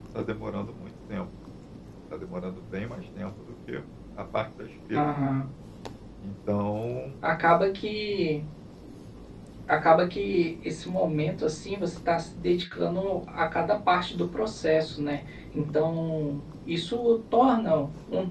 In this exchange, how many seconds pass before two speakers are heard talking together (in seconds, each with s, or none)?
none